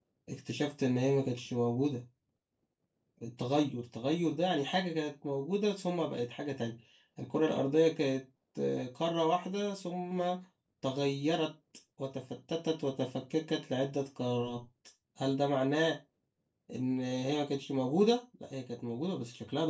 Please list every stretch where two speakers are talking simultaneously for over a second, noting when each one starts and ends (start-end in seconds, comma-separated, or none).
none